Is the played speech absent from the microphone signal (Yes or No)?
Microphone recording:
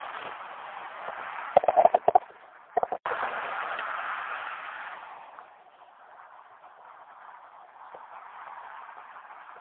Yes